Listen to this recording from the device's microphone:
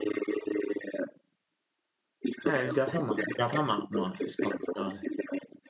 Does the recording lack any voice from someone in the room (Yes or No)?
No